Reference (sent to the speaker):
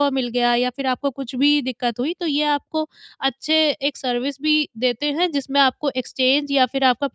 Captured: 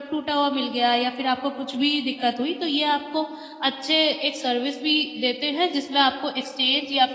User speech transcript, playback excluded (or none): none